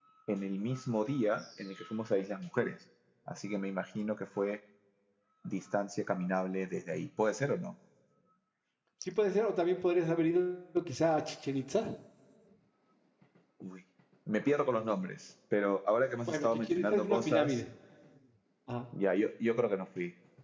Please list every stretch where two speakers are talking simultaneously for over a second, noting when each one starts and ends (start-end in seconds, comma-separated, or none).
16.3-17.6